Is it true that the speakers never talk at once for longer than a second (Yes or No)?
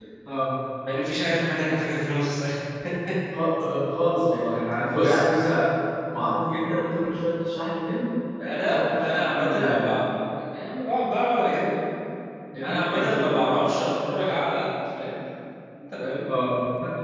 No